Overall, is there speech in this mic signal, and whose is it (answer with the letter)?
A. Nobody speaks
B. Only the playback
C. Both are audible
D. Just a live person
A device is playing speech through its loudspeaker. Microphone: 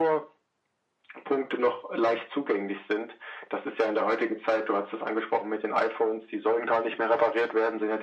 B